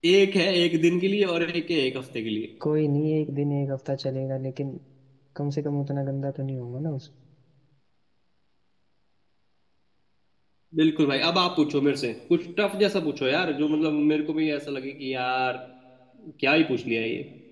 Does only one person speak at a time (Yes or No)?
Yes